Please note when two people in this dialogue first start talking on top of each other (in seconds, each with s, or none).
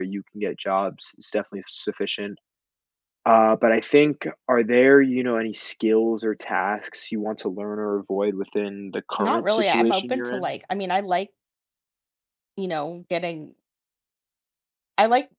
9.2 s